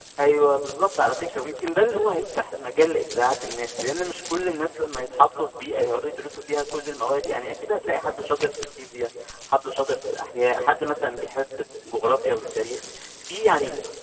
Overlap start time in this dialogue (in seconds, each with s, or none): none